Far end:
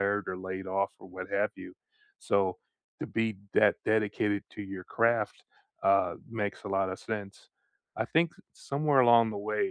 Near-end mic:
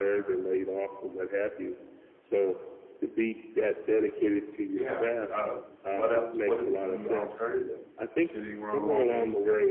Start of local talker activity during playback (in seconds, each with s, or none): 4.7 s